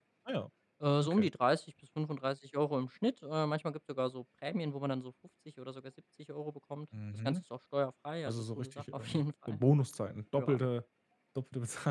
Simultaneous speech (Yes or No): Yes